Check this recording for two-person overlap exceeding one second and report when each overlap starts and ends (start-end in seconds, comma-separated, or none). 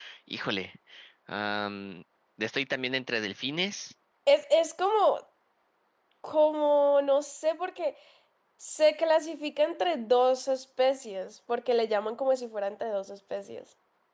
none